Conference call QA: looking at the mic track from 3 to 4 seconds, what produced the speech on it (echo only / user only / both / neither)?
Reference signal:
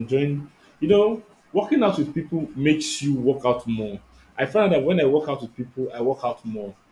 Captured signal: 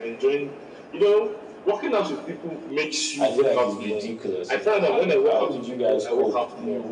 both